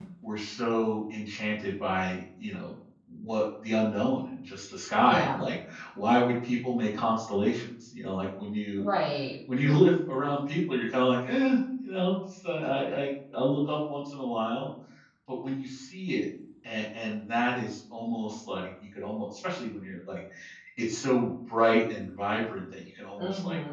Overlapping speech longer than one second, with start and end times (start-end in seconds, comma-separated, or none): none